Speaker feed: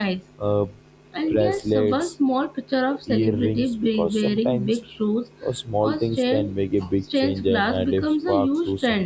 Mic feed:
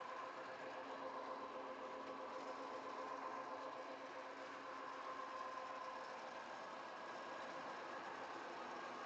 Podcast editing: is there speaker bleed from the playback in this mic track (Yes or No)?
No